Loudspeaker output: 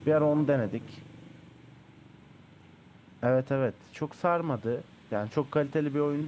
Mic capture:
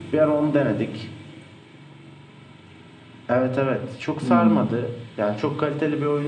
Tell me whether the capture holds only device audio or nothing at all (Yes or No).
No